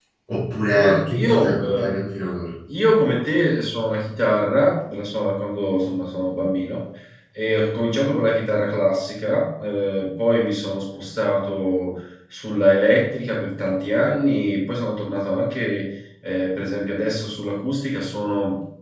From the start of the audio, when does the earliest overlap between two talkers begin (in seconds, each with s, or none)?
0.7 s